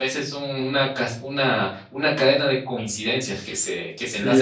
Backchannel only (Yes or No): No